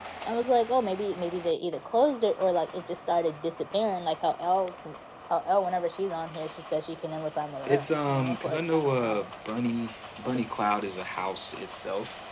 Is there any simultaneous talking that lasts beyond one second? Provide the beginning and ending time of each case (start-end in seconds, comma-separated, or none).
7.6-9.2